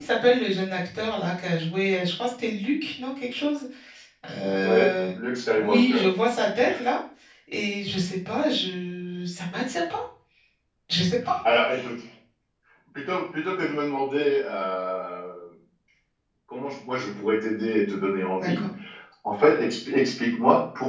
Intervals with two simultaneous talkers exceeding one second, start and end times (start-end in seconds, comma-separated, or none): none